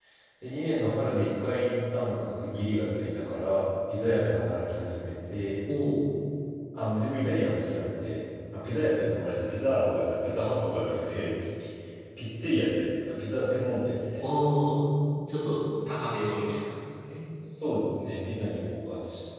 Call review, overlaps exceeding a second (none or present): none